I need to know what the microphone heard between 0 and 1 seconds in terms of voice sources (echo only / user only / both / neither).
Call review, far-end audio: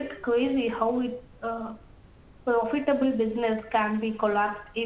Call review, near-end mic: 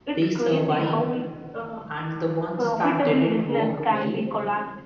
both